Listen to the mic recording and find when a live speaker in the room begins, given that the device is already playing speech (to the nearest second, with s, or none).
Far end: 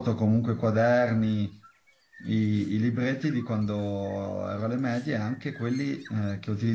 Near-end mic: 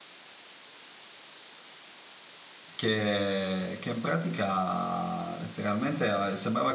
3 s